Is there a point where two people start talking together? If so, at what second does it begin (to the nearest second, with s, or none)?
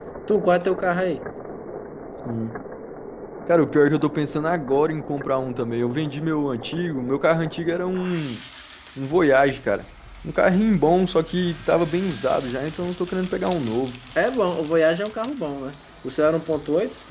none